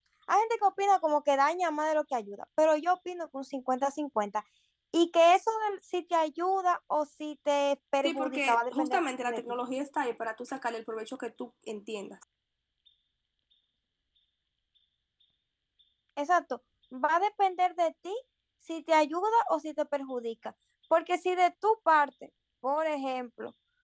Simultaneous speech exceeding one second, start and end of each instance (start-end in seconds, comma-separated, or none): 8.0-9.4